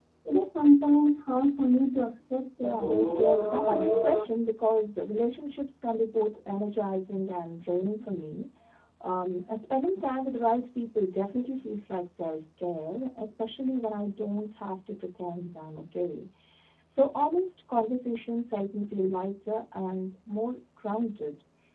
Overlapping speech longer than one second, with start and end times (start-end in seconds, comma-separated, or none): 2.6-4.2